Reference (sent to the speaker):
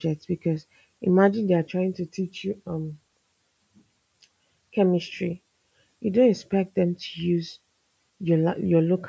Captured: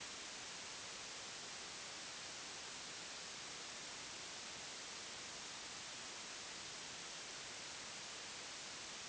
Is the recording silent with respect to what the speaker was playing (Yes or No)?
Yes